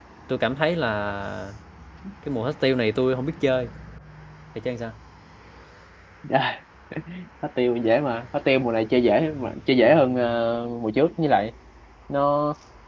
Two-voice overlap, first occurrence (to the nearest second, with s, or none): none